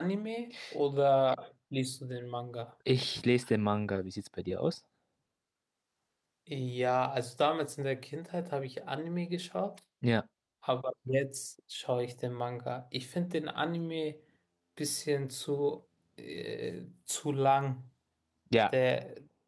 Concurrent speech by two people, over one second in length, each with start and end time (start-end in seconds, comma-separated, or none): none